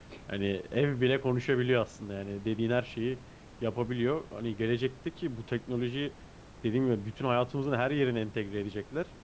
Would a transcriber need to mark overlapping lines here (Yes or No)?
No